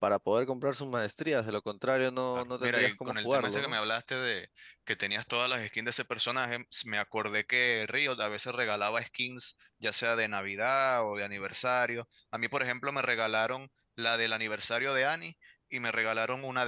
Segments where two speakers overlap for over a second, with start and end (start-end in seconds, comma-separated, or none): 2.3-3.8